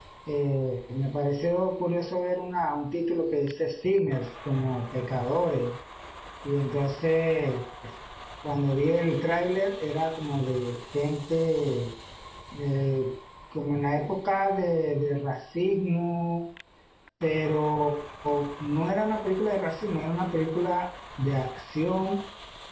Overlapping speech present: No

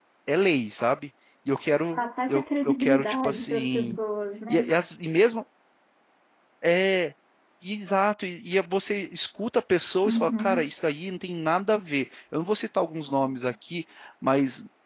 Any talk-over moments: Yes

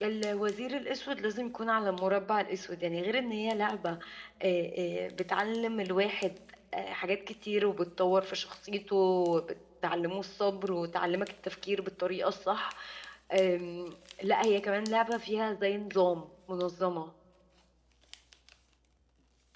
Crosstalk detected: No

